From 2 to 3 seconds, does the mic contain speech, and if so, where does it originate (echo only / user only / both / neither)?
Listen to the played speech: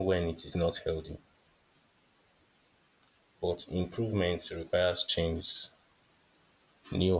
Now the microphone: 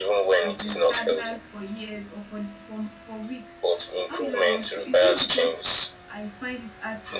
user only